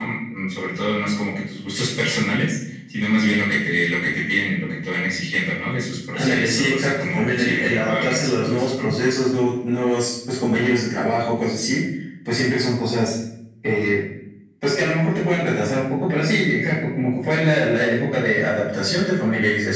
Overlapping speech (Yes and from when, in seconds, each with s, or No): Yes, from 6.1 s